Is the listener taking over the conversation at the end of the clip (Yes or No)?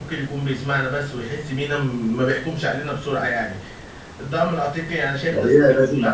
Yes